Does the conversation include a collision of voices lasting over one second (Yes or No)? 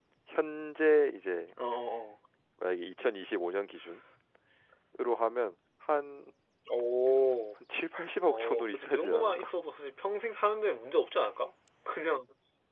Yes